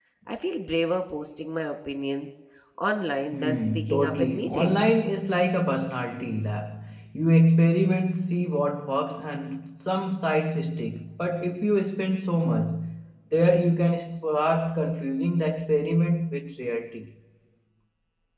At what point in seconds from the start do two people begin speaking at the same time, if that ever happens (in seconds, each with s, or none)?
3.3 s